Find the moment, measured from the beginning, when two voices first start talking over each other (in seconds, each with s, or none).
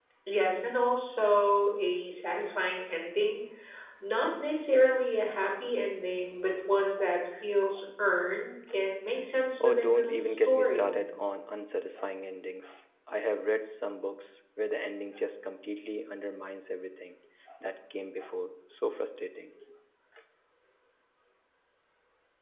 9.6 s